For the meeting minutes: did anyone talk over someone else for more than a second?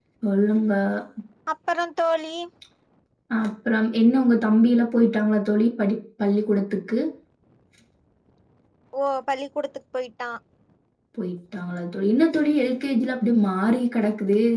No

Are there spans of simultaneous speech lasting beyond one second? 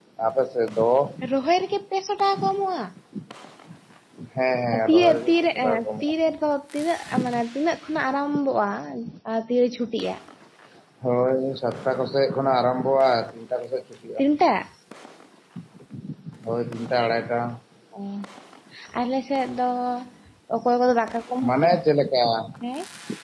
Yes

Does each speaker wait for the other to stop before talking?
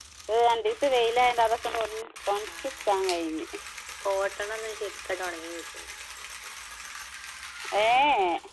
Yes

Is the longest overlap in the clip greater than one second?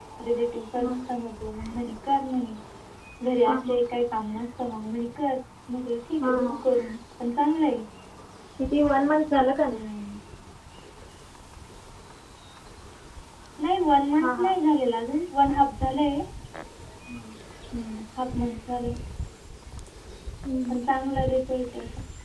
No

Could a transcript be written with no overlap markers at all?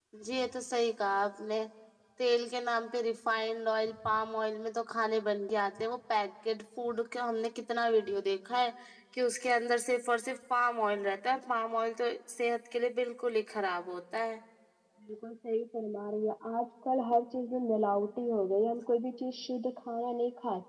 Yes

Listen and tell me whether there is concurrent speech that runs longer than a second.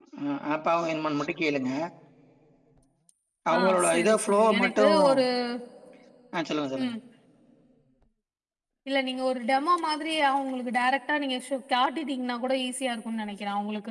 Yes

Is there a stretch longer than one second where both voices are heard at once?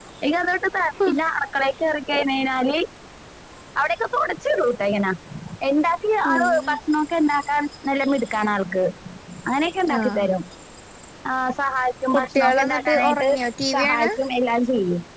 Yes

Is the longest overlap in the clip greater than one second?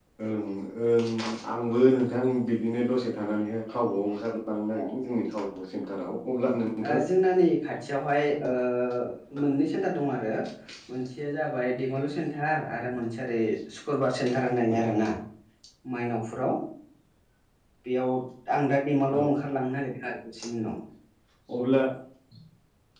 No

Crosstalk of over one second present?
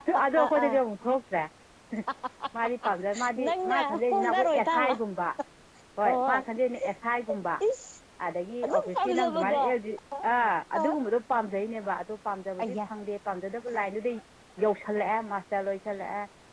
Yes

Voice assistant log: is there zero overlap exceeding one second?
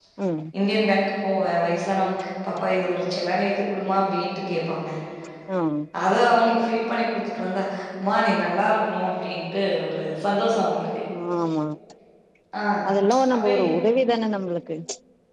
Yes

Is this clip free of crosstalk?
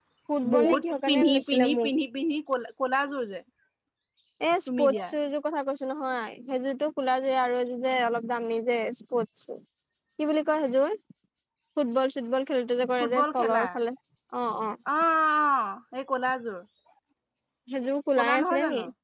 No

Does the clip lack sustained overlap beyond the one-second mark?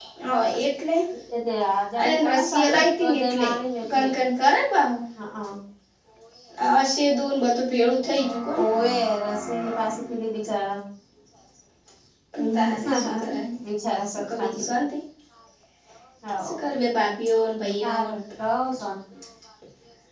No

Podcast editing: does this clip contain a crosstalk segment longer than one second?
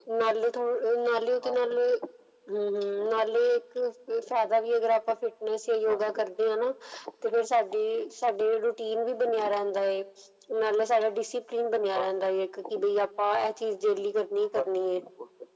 No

